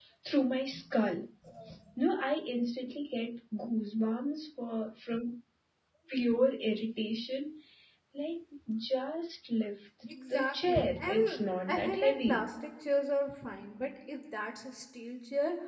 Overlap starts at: 10.1 s

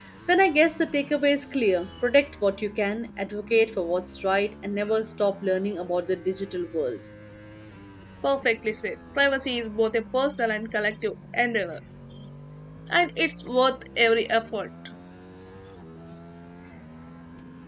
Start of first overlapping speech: none

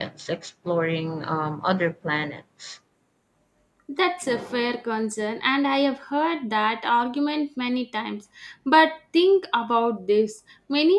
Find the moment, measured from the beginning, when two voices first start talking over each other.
none

